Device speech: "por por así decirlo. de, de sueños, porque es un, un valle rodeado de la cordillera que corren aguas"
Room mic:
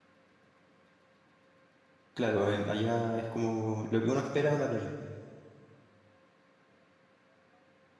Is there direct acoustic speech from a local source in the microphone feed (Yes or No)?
Yes